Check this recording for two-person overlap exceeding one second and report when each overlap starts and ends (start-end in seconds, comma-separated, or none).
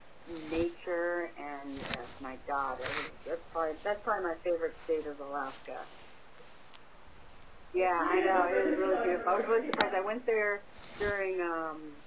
8.0-9.9